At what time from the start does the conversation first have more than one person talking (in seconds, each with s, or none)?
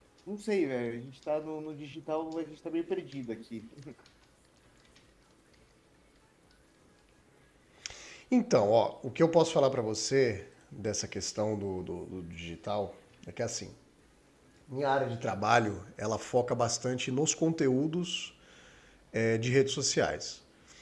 none